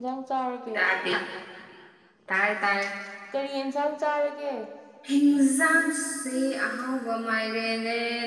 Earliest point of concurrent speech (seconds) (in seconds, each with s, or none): none